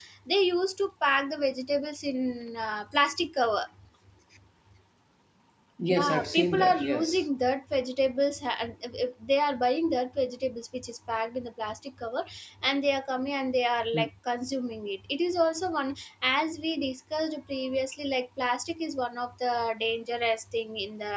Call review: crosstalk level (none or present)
present